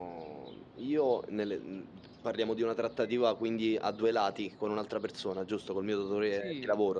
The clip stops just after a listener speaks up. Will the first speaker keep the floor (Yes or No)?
No